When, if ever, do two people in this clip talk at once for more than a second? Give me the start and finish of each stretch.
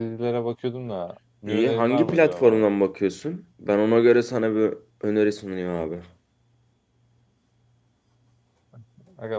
1.5-2.7

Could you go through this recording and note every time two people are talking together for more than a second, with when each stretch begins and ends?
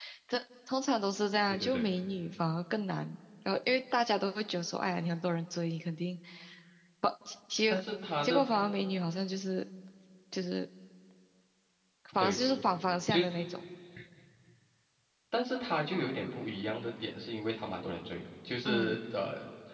none

